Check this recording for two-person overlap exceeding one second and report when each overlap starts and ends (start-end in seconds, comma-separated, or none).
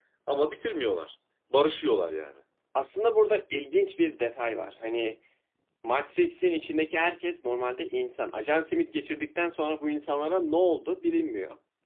none